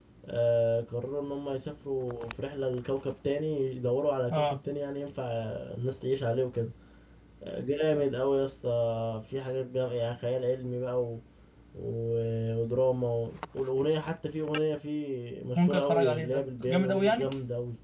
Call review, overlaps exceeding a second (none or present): present